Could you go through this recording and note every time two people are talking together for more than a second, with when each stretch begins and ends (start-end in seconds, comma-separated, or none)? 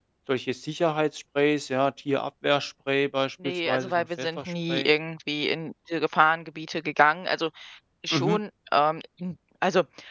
3.4-4.9